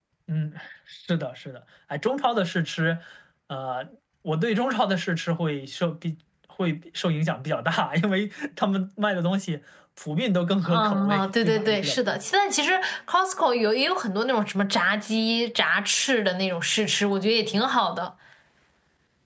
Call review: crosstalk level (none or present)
present